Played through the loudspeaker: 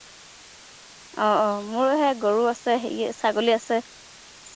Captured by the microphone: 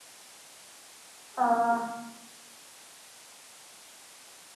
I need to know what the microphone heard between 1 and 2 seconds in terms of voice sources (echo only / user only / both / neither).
user only